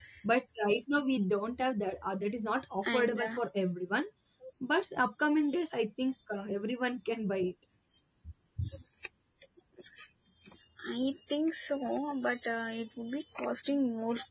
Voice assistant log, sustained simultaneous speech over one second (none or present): none